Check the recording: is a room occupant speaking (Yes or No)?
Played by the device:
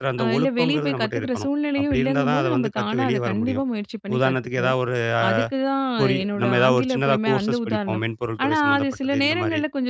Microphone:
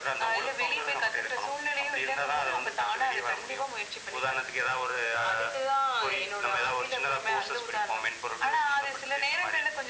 No